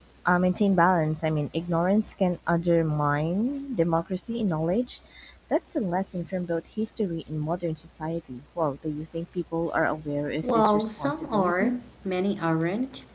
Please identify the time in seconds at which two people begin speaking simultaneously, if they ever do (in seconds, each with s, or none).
10.4 s